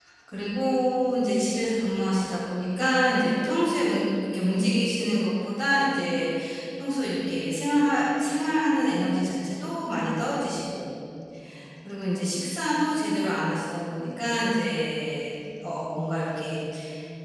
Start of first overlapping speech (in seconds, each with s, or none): none